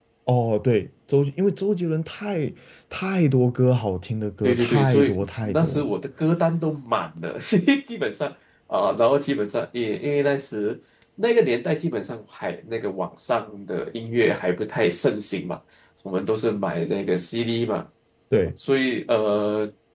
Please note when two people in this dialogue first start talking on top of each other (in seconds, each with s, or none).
4.4 s